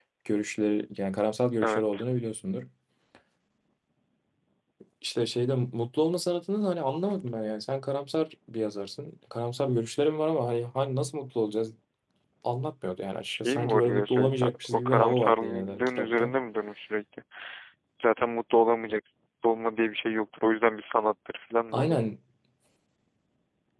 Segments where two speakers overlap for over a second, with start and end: 13.3-16.3

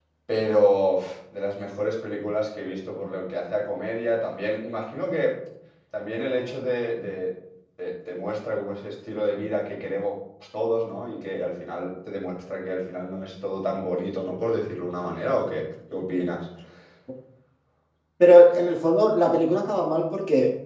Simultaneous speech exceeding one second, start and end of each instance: none

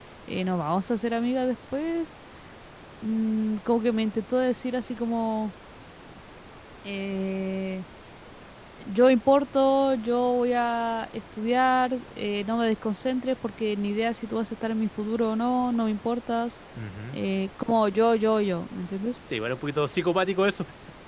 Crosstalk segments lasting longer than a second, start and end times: none

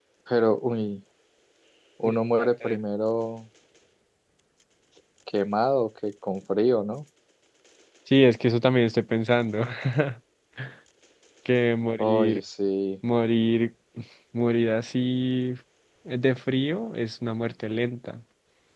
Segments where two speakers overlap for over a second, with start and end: none

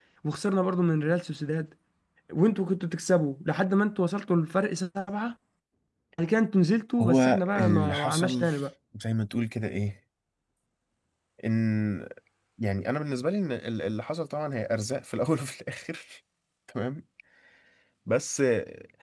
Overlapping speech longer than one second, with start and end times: 7.0-8.4

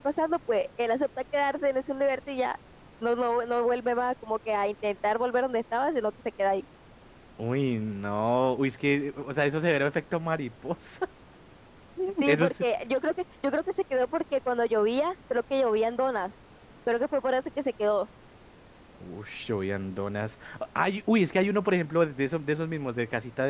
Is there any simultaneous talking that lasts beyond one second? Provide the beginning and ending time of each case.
none

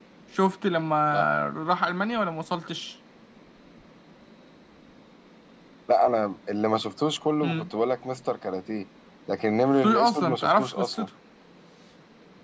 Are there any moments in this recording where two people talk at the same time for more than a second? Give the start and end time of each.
9.7-11.1

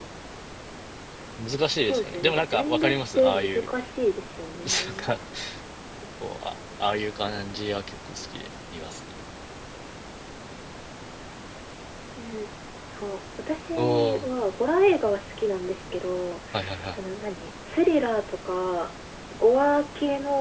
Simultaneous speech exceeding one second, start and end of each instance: 1.7-3.7

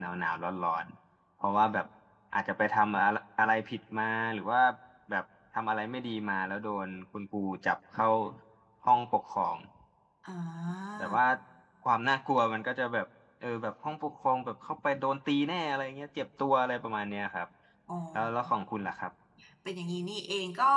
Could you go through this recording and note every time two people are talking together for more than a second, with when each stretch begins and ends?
none

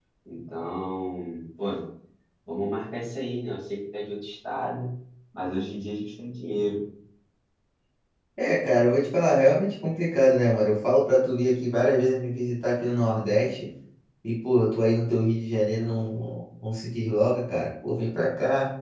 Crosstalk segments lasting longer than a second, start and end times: none

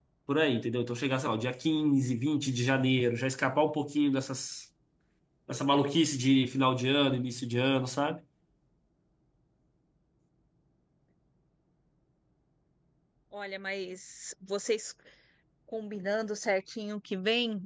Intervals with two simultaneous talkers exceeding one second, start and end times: none

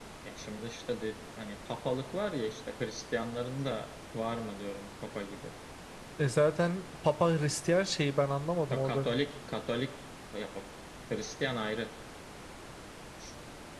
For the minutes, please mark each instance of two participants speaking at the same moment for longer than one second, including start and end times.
none

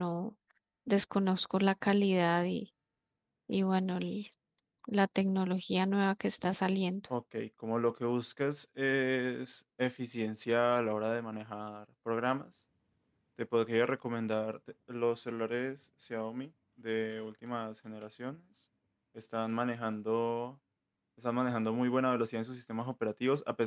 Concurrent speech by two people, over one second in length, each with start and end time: none

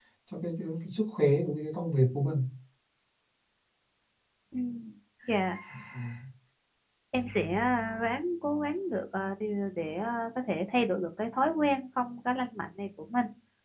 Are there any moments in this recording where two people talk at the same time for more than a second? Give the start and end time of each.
none

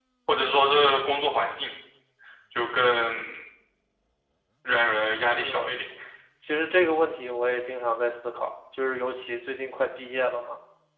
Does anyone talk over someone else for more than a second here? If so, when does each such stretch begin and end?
none

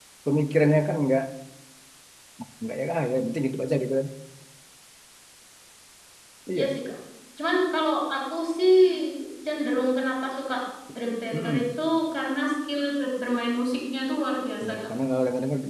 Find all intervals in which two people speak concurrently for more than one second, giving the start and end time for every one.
none

